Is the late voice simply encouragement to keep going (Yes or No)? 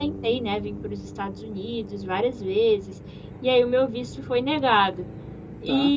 Yes